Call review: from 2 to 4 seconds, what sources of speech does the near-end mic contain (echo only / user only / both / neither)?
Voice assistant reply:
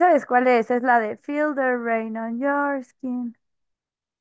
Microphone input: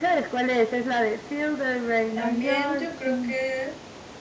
both